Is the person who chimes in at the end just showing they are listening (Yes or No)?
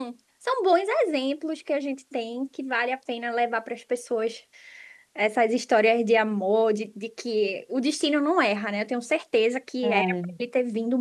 Yes